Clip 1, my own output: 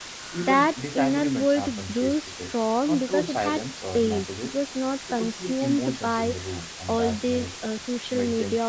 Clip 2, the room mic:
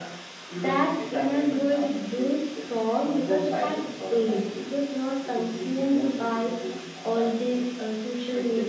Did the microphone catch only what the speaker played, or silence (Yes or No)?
Yes